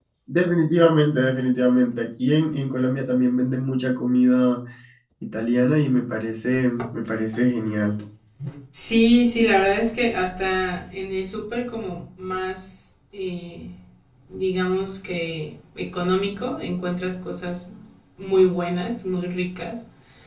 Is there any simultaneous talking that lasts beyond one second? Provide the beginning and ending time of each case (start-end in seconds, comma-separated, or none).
none